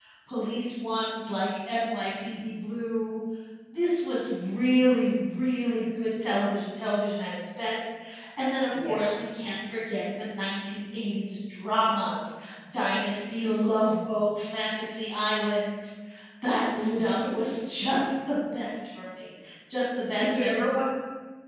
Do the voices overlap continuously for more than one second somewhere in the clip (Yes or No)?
No